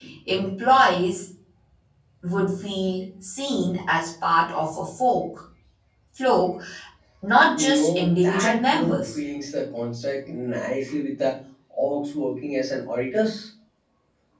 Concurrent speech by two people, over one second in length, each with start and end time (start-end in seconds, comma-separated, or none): 7.5-9.2